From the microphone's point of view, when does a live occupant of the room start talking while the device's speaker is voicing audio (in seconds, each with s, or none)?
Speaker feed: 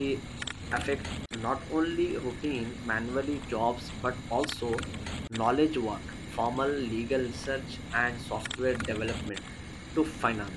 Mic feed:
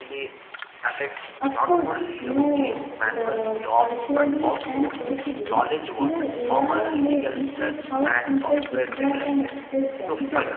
1.4 s